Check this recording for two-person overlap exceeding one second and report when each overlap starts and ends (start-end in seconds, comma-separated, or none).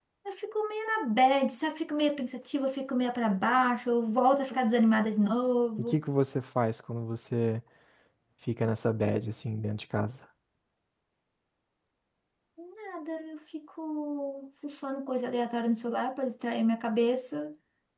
none